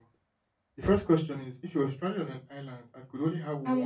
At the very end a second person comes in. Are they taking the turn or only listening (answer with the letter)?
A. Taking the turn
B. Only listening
A